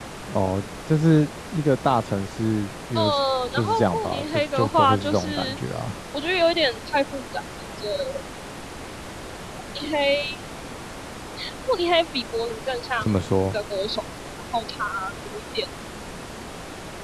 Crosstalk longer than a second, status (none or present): present